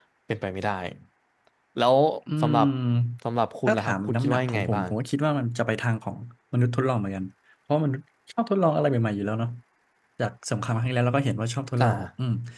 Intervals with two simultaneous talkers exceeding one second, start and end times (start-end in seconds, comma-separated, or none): 3.7-4.9